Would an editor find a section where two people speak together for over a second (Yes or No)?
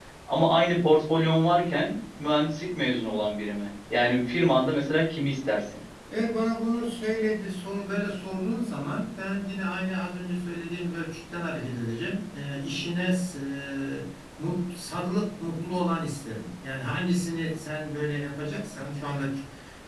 No